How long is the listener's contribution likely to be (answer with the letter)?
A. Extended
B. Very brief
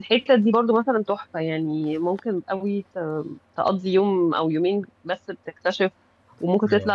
B